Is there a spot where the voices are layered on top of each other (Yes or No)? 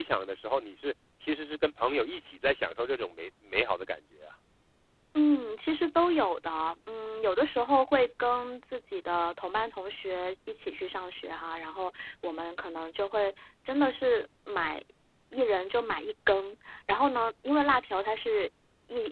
No